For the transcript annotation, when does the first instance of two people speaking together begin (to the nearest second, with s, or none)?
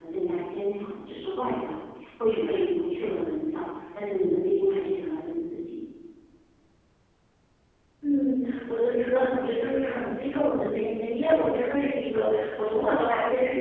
none